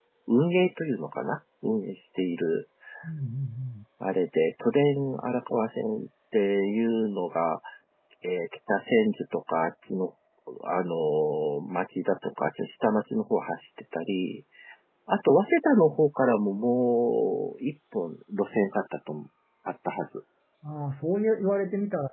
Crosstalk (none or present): none